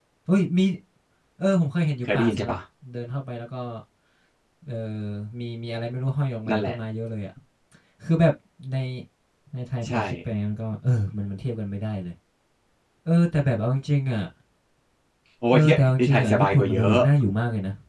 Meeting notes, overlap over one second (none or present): present